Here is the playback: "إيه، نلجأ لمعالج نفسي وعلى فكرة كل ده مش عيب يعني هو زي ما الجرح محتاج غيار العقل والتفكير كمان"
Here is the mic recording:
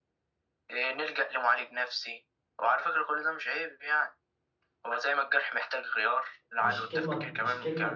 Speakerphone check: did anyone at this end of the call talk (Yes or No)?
Yes